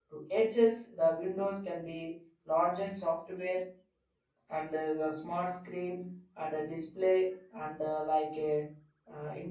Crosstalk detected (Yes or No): No